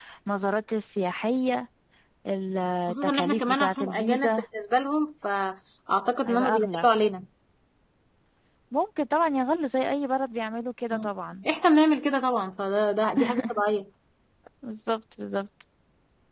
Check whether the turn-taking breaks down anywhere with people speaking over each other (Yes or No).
Yes